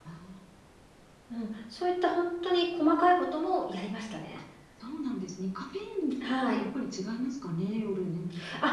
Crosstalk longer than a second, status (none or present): none